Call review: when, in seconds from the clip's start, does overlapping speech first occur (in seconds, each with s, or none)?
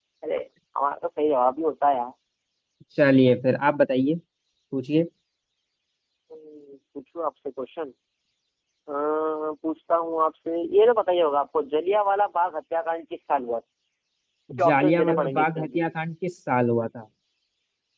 14.6 s